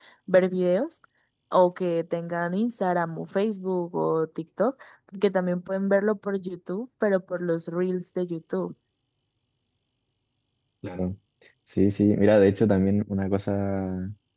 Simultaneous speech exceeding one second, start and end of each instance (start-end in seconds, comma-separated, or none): none